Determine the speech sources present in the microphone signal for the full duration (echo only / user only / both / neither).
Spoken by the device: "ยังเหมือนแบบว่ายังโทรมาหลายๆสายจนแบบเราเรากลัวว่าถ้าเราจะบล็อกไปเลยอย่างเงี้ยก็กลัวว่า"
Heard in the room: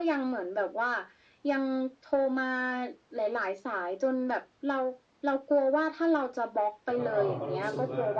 both